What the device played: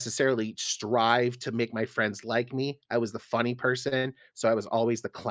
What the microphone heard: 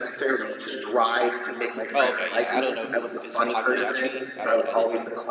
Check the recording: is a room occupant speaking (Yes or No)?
Yes